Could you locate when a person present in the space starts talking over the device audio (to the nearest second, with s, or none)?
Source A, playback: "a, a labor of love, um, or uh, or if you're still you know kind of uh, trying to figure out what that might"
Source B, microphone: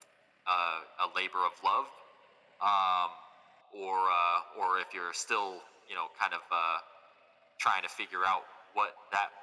none